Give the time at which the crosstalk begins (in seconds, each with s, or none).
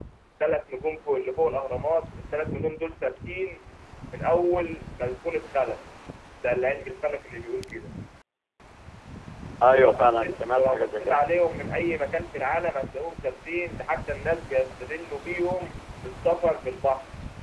9.7 s